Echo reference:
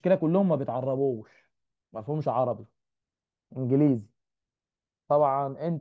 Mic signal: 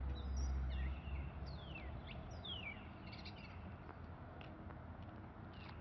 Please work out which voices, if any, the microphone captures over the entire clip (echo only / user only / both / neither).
neither